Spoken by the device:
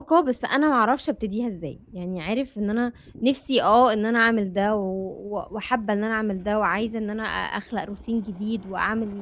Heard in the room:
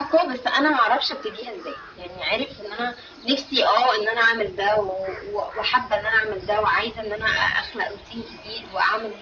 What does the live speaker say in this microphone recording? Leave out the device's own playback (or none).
none